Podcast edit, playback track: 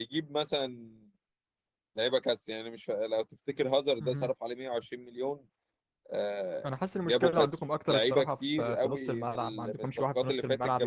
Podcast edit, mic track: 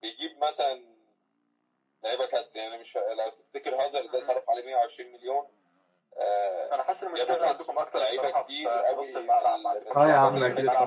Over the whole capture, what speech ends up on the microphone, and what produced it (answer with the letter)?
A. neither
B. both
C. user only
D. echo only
B